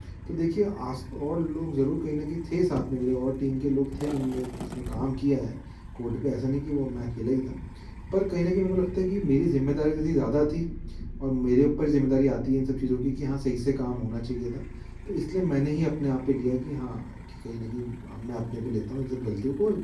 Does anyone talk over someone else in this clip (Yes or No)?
No